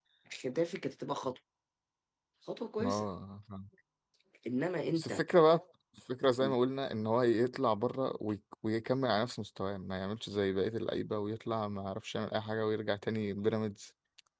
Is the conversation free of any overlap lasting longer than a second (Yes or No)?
Yes